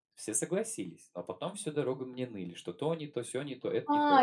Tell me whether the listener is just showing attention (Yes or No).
No